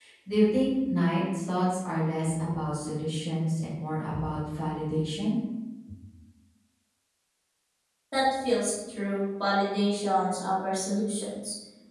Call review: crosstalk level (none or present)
none